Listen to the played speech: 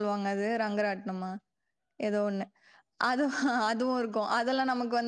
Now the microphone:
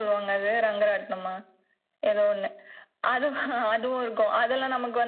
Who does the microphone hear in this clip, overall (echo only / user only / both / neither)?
echo only